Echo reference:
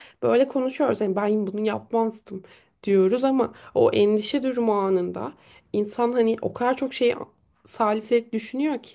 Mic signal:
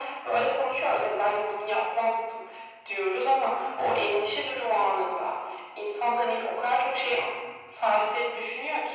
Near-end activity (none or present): none